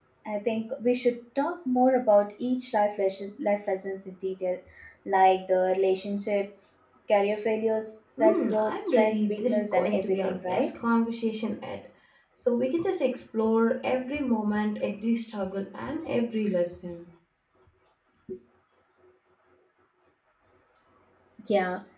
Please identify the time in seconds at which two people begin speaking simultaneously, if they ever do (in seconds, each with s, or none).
8.2 s